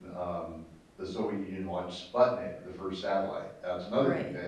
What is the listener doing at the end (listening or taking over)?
listening